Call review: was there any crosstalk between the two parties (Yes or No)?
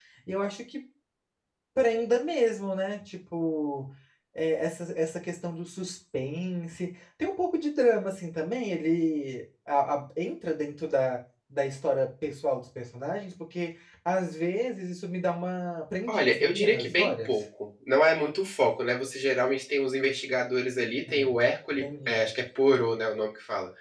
Yes